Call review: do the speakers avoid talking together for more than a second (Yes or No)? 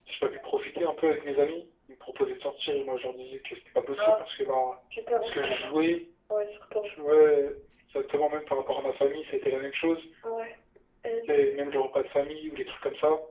Yes